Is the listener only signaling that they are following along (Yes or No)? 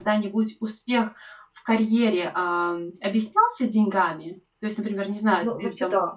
No